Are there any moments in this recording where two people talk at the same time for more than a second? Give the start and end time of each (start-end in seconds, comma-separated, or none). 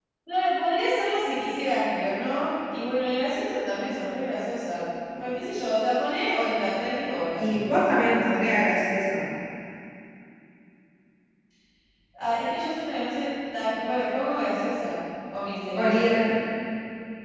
none